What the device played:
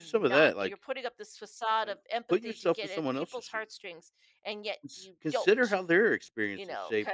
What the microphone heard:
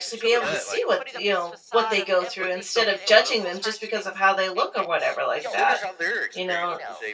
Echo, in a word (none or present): present